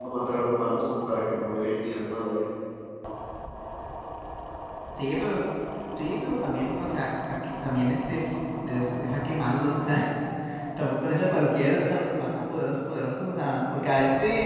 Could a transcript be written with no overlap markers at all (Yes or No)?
Yes